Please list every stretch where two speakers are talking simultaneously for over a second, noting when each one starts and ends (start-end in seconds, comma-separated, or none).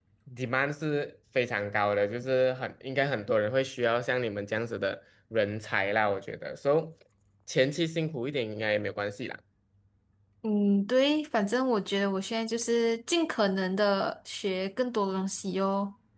none